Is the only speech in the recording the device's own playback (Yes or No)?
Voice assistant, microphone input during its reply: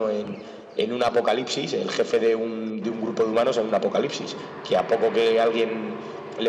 Yes